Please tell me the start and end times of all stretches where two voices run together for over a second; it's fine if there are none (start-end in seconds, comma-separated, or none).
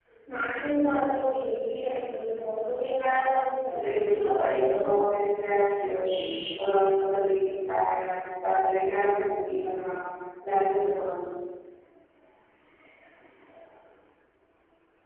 3.7-5.0